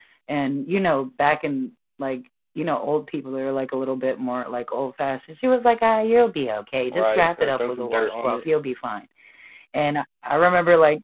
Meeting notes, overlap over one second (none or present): present